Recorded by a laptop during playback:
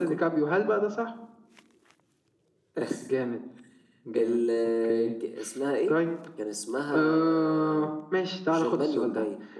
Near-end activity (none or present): none